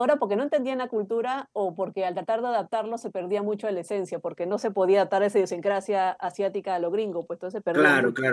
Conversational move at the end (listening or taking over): taking over